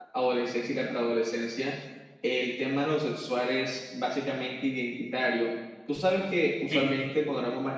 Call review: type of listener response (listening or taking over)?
listening